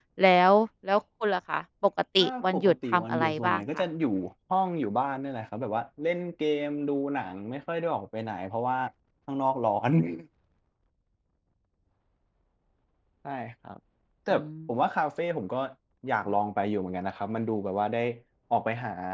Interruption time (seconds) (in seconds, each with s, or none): 2.2 s